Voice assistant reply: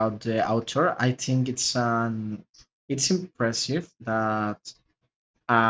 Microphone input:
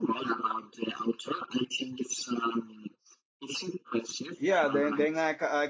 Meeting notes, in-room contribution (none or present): present